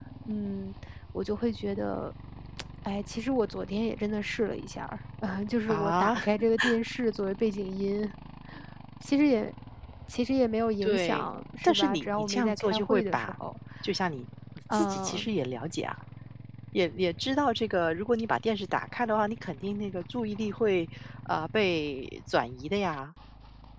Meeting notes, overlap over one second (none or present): present